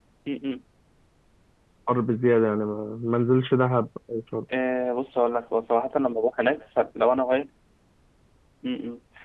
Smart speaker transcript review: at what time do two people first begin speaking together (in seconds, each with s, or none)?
none